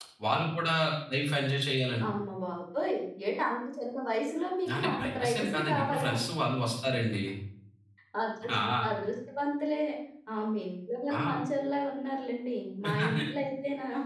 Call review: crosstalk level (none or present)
present